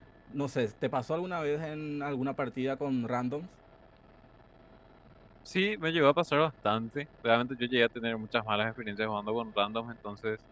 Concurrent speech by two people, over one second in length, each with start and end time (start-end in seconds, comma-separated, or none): none